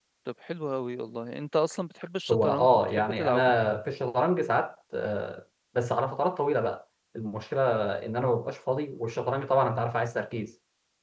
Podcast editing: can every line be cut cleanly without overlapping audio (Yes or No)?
No